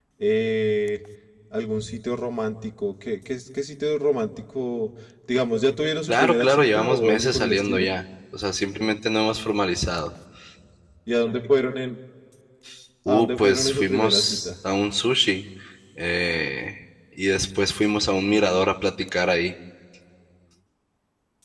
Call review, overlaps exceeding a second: present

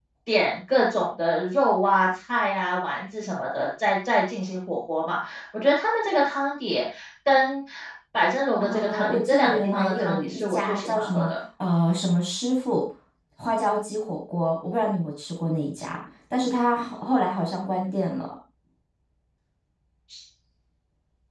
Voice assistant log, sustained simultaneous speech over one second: present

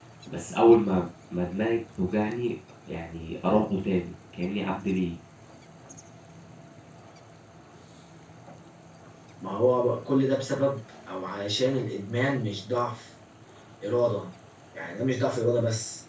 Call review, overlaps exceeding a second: none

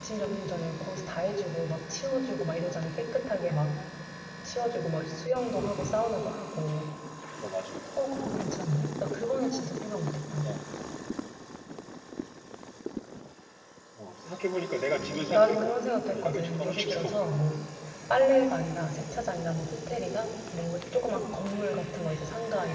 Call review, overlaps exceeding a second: present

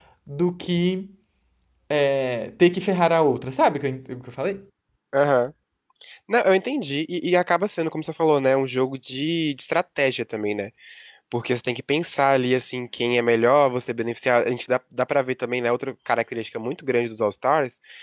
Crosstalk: none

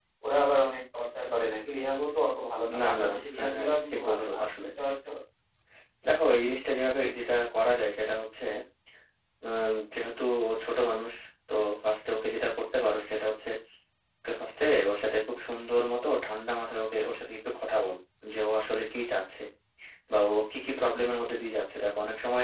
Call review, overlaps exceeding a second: present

